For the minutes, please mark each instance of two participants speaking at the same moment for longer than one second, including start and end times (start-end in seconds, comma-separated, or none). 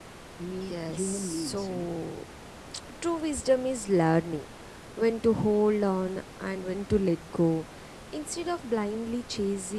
0.7-1.9